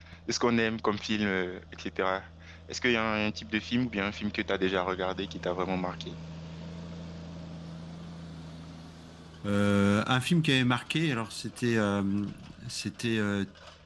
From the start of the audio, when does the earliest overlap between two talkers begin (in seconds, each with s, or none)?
none